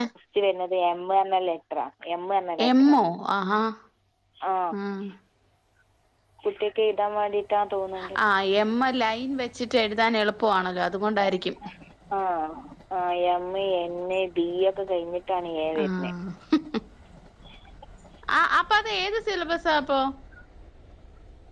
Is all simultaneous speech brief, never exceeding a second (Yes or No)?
Yes